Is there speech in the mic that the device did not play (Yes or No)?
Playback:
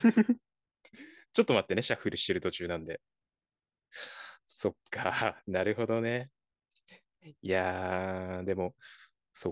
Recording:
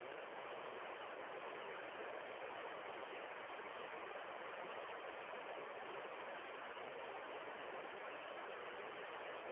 No